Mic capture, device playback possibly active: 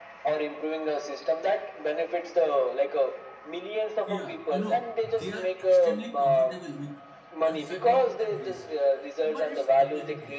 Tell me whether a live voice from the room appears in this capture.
Yes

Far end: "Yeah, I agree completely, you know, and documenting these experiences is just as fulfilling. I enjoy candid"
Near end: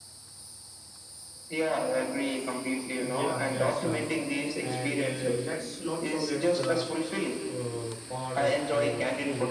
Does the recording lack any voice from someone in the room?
No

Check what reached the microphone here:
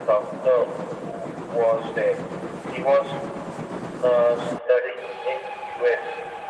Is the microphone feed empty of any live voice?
Yes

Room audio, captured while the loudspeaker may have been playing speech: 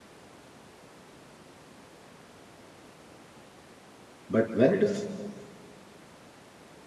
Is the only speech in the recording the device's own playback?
No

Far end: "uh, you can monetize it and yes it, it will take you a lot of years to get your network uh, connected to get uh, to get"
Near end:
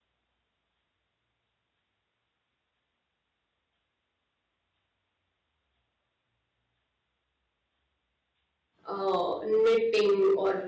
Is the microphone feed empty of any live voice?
No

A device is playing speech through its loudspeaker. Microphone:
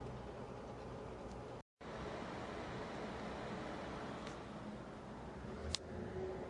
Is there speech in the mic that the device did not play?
No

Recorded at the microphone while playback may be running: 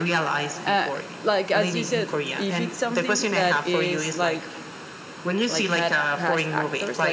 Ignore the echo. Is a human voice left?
Yes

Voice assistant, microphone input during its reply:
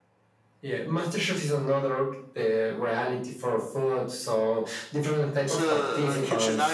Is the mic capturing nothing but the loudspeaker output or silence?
No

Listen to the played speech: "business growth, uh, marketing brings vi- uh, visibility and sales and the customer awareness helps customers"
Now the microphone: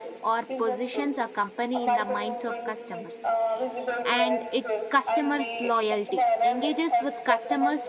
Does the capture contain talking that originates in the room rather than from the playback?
Yes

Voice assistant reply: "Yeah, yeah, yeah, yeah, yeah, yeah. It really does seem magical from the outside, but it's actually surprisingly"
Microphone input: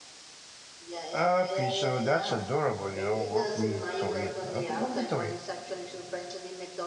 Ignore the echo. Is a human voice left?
Yes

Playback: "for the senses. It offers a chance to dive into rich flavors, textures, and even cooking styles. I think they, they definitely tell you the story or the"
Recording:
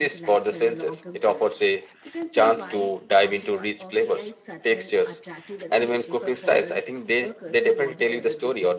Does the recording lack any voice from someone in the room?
No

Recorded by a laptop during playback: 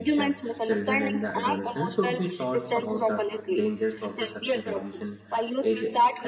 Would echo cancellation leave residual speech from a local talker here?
Yes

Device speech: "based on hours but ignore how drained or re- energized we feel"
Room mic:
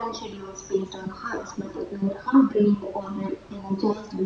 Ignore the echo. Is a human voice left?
No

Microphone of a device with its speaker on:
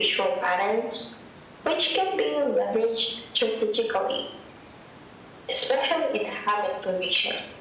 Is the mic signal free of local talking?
Yes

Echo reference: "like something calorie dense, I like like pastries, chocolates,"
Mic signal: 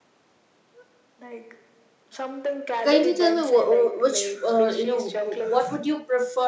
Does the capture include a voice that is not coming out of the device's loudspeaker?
Yes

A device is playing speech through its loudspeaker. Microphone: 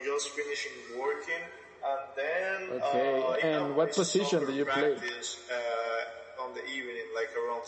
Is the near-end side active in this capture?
Yes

